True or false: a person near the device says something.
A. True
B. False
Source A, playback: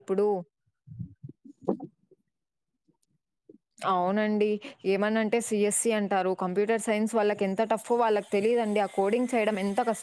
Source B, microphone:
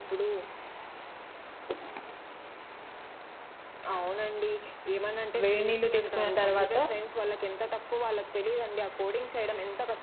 A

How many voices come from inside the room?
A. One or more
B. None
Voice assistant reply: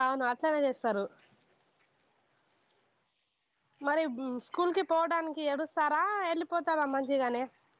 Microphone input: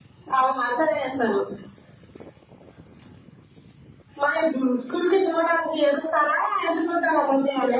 B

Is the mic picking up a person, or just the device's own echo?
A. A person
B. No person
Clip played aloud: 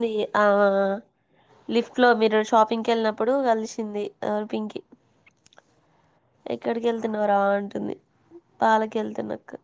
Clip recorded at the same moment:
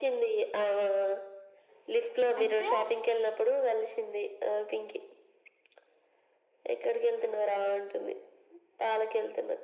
A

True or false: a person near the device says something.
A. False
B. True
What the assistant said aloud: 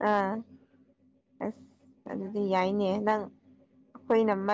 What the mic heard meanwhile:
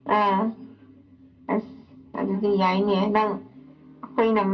A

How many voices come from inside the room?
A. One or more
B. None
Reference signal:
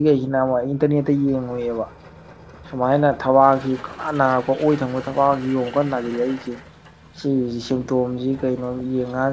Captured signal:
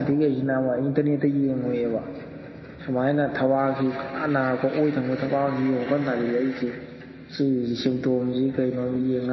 B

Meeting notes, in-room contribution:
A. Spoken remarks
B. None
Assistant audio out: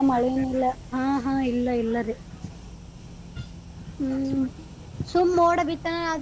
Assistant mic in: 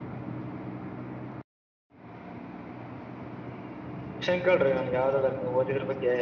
A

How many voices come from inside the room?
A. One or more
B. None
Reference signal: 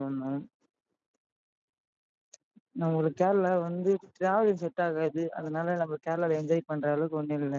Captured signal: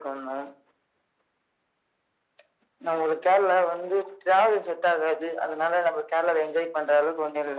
B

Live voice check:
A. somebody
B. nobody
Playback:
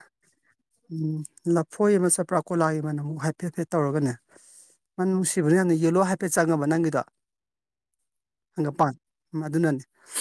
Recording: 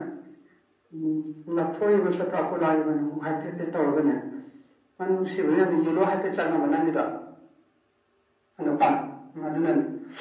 B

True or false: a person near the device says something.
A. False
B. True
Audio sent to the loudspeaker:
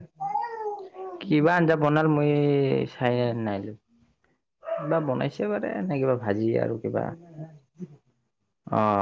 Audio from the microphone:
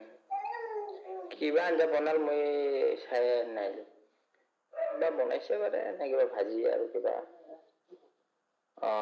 A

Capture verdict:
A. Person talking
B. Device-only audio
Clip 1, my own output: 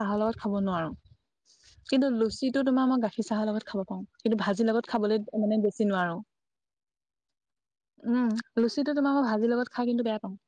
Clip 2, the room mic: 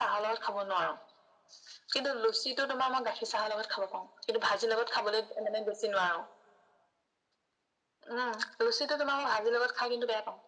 B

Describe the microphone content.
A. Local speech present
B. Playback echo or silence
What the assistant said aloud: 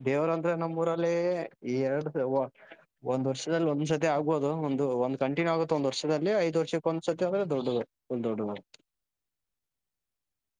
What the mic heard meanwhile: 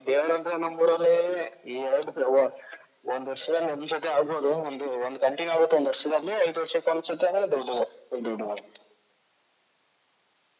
B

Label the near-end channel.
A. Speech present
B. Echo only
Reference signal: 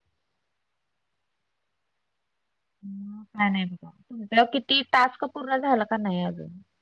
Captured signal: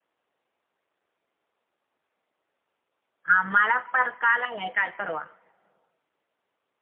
A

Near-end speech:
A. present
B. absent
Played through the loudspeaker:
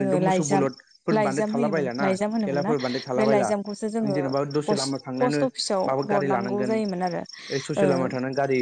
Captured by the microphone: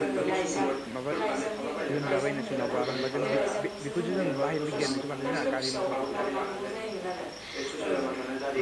A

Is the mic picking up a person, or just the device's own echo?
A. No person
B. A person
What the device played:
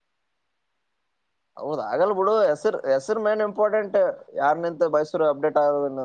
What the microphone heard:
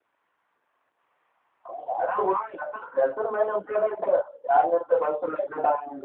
A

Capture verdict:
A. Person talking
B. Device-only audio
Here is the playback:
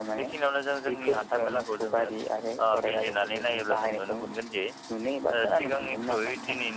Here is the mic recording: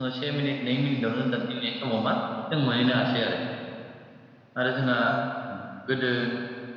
A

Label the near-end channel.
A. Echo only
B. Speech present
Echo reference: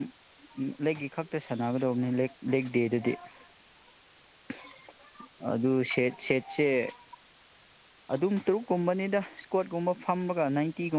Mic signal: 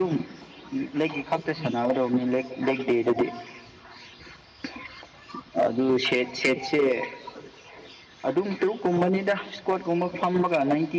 A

